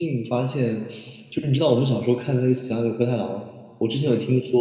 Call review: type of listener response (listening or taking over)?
listening